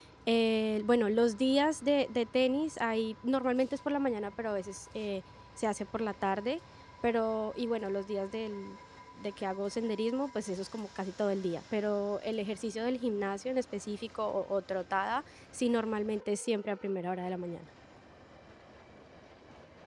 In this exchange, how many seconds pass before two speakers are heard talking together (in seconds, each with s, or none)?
none